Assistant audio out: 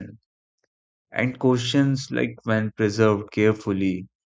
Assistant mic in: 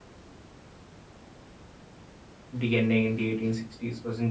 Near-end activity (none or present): present